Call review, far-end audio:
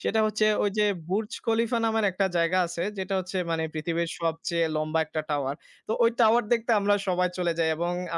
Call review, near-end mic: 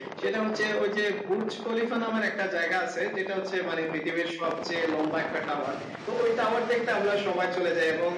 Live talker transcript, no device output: none

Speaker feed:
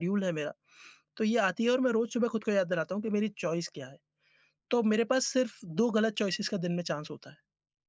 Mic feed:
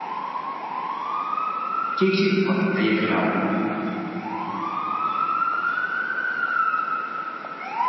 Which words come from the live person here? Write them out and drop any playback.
एक चीज़ और बताइए फिर आप

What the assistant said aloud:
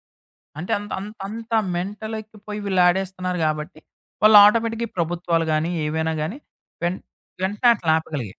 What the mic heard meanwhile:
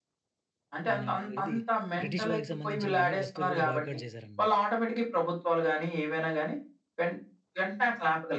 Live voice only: మన ఏది బ్రిటిష్ వారికి సంబంధించినవి అన్ని వస్తువులు కూడా బాయ్‌కాట్ చేశారన్నమాట.

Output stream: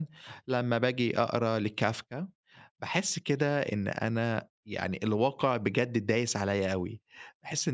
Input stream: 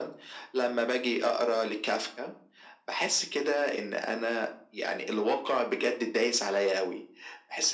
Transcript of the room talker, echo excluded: none

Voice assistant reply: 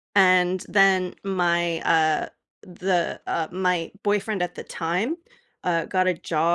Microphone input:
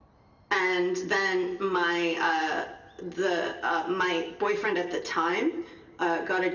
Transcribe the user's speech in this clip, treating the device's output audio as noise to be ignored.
none

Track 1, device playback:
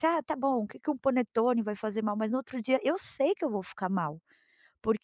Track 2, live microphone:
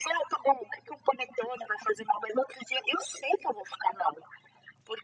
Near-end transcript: none

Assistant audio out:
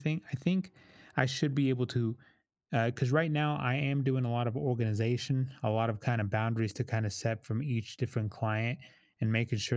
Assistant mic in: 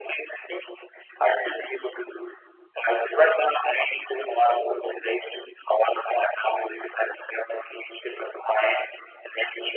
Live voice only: none

